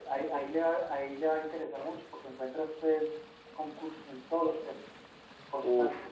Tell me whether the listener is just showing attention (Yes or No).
No